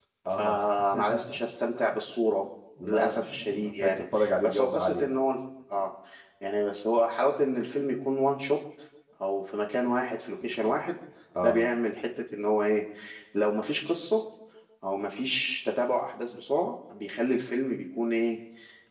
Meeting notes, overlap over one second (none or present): present